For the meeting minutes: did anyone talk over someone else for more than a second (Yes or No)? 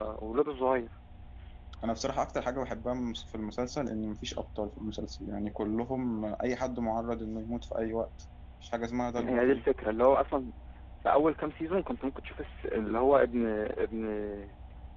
No